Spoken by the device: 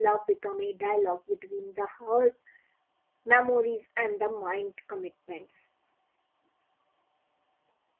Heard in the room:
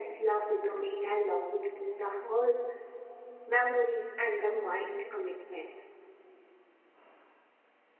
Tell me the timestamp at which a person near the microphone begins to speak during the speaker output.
none

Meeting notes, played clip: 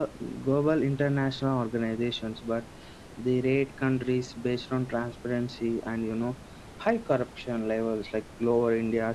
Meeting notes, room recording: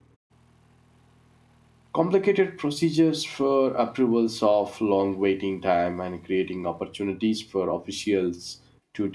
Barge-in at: 1.9 s

